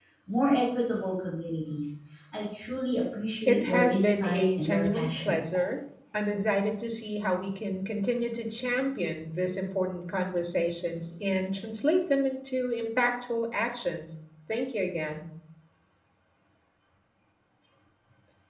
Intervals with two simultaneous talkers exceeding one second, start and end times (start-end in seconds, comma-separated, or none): 3.5-5.4